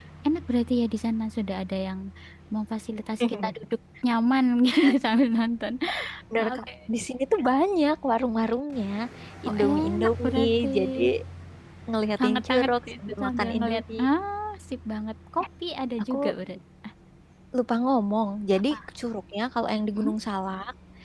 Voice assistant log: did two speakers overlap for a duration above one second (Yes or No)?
Yes